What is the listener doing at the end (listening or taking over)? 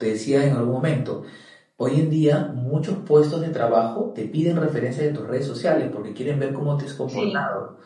listening